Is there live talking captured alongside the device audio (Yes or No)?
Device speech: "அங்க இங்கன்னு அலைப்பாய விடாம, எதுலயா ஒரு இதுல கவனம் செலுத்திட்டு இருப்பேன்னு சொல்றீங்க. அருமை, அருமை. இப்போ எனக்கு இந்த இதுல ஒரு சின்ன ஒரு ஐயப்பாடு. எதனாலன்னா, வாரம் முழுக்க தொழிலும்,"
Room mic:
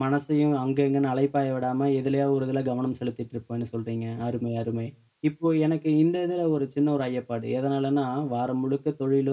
No